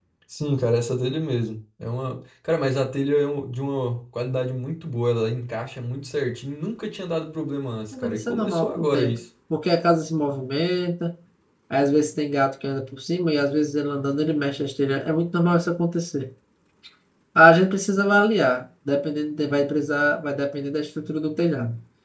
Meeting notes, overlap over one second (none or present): present